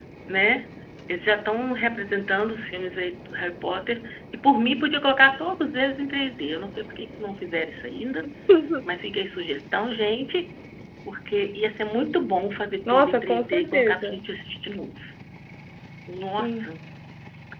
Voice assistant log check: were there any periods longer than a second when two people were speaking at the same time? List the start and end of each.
12.9-14.2

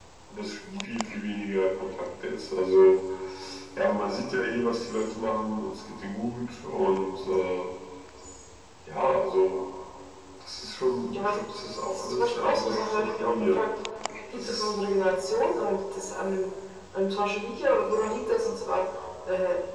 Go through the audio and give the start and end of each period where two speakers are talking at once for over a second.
11.9-13.6

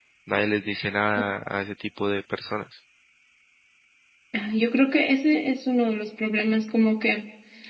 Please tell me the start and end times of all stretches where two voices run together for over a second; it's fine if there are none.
none

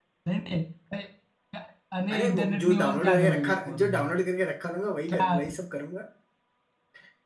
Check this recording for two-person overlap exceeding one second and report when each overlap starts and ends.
2.1-4.0

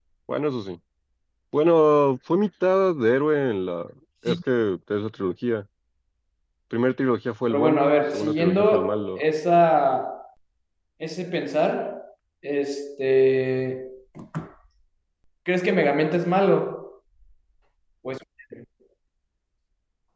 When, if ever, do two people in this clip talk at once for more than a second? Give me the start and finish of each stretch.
7.5-9.2

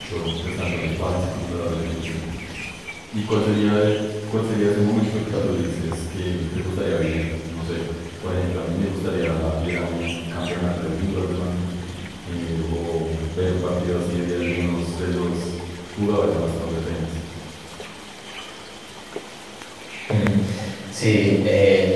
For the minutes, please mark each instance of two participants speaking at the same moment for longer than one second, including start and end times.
none

